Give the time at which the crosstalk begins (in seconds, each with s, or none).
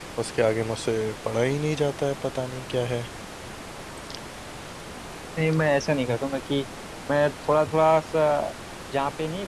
none